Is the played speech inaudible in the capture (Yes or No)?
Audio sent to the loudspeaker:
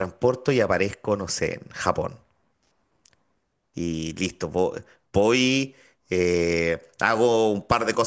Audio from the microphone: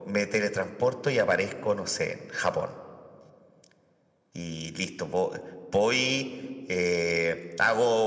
No